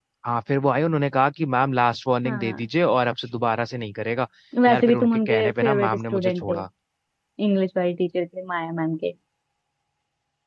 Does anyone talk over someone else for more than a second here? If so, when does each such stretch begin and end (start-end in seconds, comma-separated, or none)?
4.7-6.5